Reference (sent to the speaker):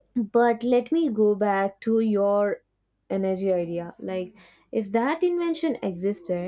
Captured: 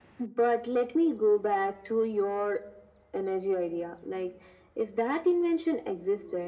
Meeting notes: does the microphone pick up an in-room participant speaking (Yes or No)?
No